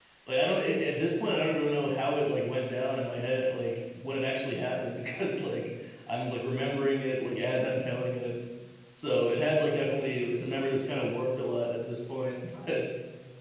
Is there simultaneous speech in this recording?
No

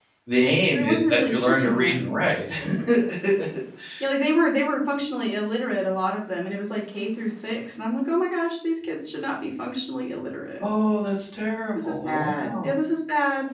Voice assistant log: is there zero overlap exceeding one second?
No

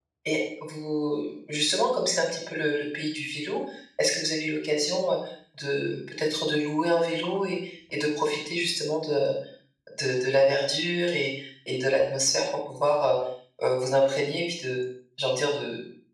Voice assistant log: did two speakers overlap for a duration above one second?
No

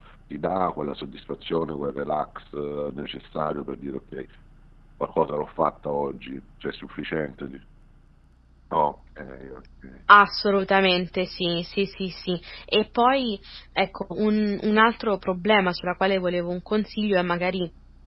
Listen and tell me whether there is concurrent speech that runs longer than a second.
No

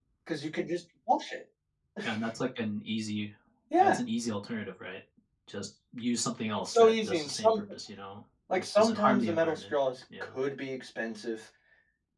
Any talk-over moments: Yes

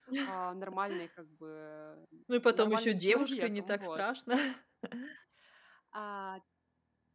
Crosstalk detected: Yes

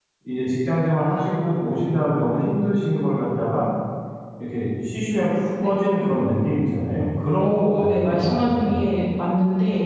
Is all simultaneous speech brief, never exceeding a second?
No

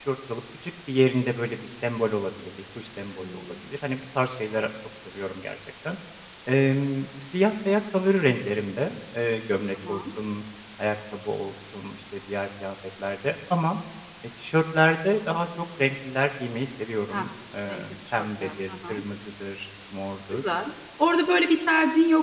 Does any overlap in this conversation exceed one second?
Yes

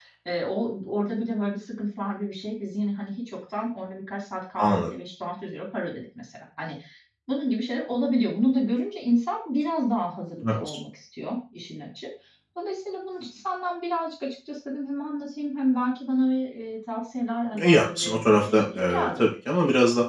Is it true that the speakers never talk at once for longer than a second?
No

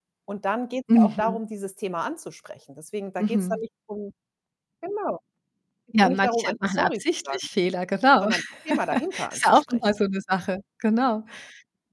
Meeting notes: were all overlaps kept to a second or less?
No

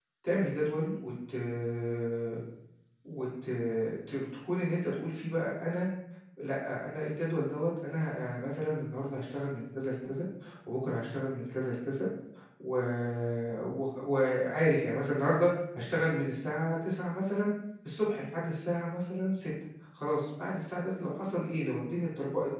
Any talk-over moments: No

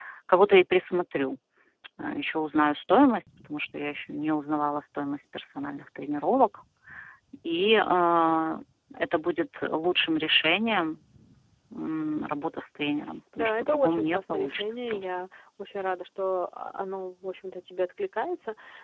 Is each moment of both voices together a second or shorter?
No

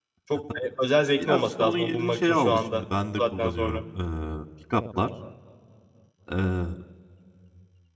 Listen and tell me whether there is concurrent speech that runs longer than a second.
Yes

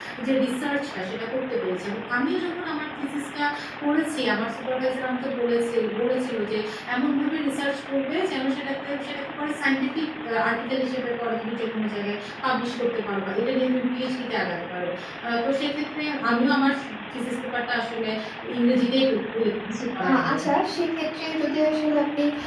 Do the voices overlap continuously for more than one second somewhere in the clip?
No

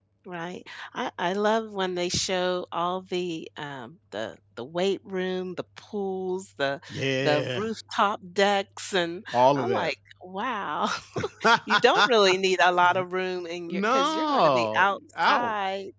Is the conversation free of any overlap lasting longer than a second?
No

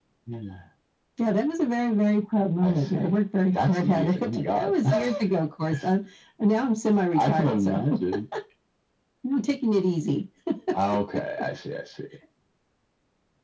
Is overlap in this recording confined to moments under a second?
No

